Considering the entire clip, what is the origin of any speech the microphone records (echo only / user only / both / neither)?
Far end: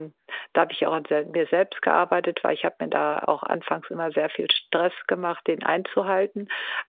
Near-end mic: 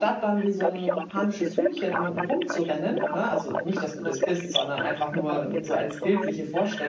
both